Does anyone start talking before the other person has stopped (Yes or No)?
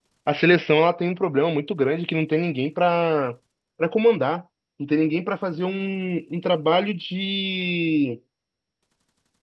No